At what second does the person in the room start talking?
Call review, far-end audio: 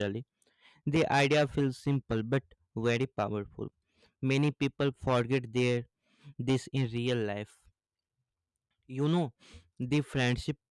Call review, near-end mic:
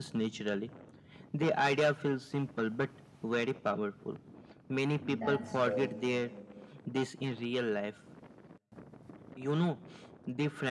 5 s

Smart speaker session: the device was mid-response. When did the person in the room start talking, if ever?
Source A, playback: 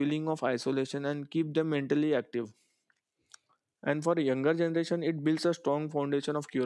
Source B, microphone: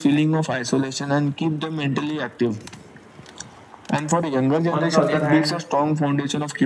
5 s

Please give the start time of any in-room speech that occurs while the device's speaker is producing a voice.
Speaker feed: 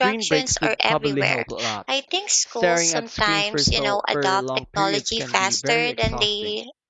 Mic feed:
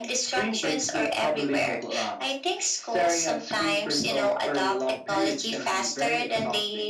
none

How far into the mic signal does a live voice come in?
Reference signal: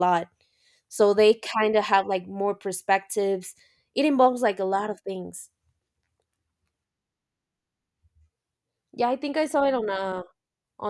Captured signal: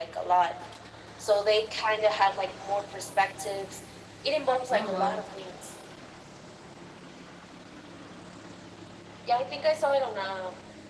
5 s

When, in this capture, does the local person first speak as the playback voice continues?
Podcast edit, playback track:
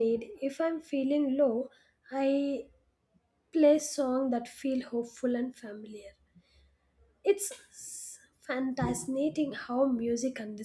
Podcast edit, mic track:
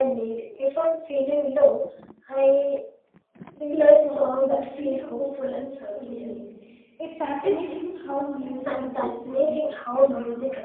4 s

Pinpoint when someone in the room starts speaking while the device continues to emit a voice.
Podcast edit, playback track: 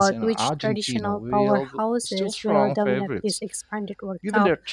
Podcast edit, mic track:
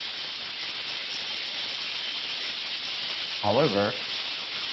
3 s

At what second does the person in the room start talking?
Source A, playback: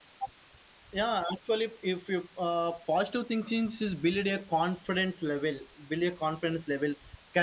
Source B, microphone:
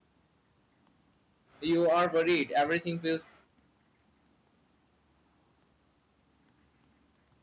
2 s

